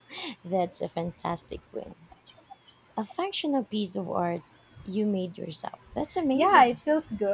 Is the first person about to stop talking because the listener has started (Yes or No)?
Yes